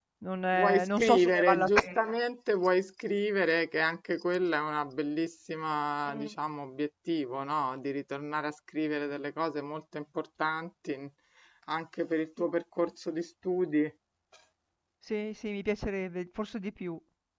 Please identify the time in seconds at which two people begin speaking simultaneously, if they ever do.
0.5 s

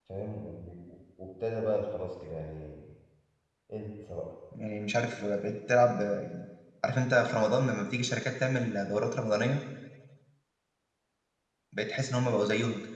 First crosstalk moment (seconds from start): none

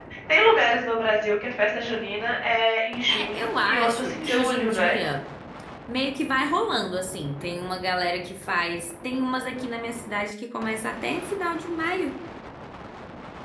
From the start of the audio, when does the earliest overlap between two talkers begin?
3.1 s

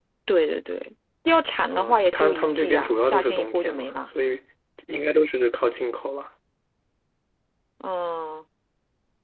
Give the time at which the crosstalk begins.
1.7 s

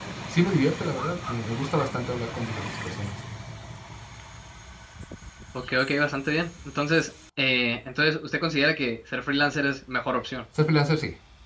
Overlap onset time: none

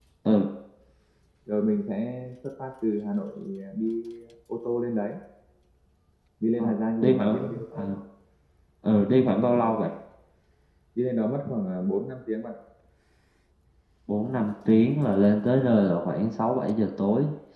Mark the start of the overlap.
6.6 s

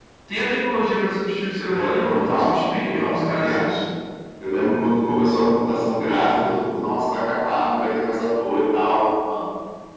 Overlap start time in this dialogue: 1.7 s

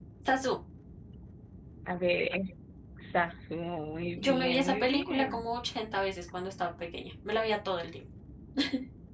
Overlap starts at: 4.1 s

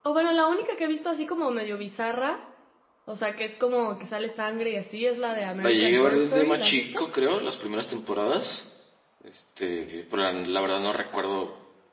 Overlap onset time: 5.6 s

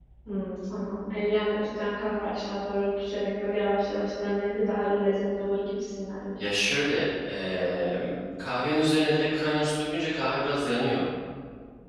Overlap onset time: none

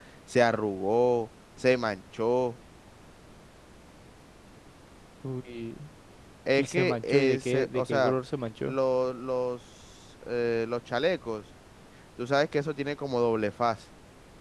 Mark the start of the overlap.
6.6 s

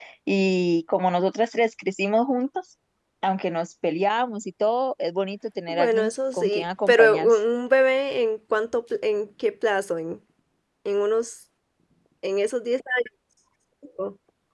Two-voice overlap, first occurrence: 5.7 s

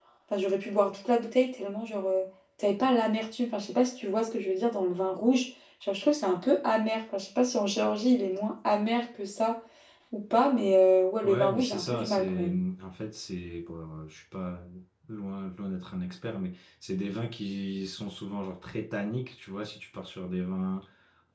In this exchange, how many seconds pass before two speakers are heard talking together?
11.2 s

